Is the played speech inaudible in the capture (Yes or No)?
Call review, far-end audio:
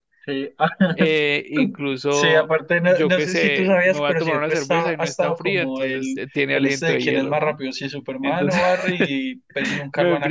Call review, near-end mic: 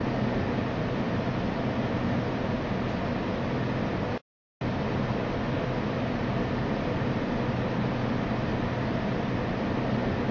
Yes